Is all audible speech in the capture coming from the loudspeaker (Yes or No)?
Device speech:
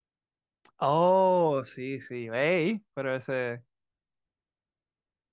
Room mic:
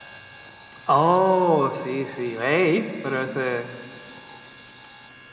Yes